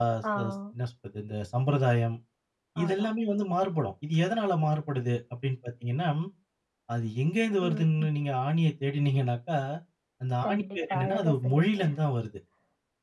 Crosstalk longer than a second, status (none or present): present